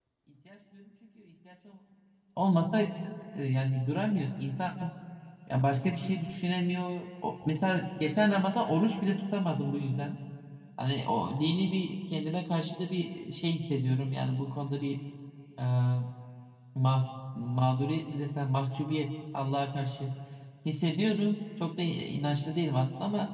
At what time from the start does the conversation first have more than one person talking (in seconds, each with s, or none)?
none